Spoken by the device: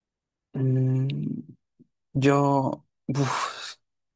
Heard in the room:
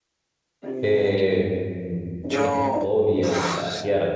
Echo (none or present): present